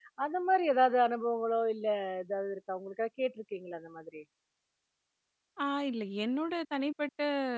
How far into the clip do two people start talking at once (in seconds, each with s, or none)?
none